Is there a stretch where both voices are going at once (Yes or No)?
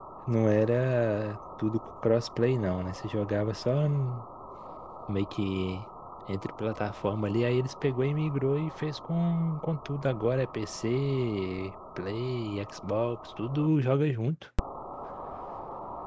No